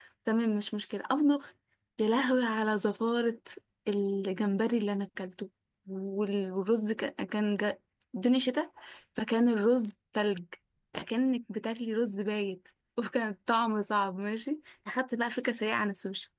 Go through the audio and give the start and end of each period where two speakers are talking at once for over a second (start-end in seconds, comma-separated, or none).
none